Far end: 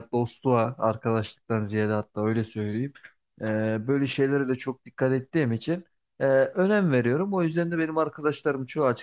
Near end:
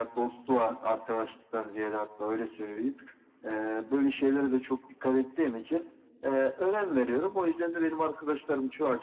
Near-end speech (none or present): none